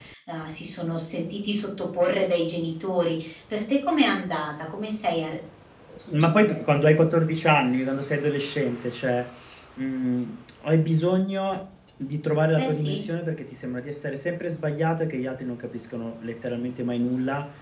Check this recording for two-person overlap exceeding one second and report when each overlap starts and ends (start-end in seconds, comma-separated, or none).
none